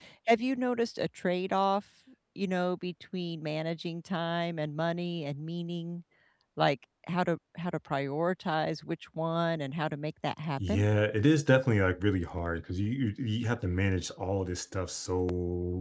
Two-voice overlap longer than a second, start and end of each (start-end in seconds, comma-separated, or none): none